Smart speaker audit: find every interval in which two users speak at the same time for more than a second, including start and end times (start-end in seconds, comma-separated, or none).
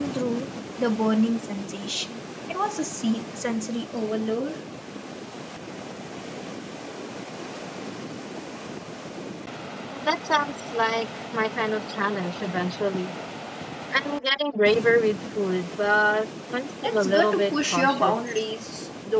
16.8-18.4